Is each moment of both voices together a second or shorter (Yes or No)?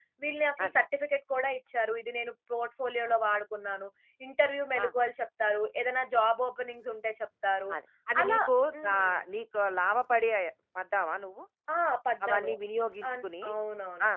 Yes